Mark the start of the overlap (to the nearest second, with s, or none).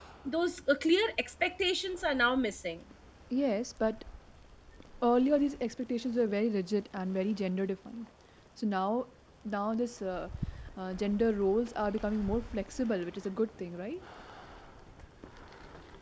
none